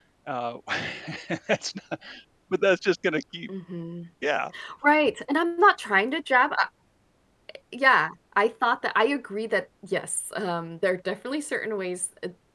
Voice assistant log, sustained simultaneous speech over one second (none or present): none